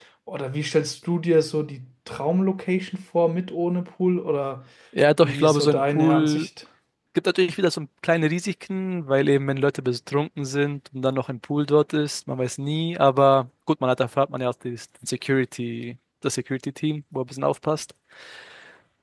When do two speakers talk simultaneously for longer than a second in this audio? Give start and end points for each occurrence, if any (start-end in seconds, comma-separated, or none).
5.2-6.5